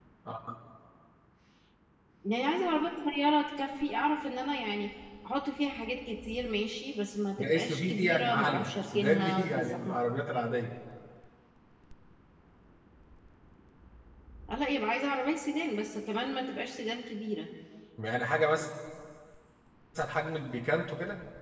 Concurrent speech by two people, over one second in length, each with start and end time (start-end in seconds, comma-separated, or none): 7.4-10.0